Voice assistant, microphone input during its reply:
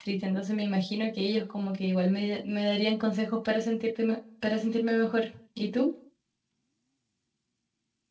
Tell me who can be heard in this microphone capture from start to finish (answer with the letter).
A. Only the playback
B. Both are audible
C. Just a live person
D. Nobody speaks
C